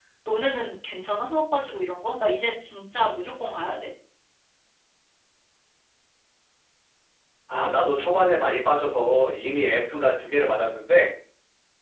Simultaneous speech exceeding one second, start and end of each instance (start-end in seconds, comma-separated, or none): none